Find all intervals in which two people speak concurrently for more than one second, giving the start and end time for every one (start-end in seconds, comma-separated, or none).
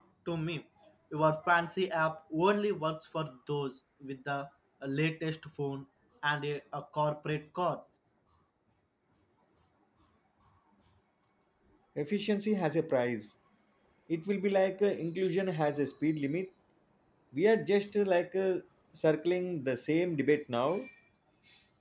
none